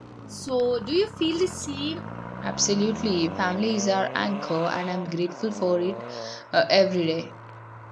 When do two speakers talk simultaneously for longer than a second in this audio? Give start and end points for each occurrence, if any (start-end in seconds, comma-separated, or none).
none